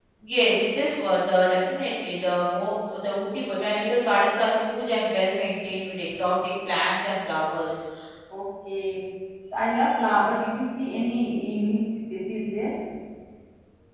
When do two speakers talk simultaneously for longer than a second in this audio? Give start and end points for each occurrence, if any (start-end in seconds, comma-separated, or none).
none